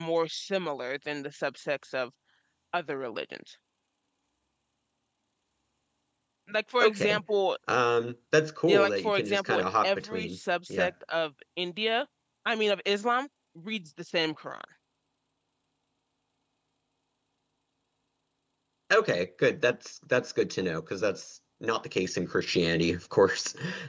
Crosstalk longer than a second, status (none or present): present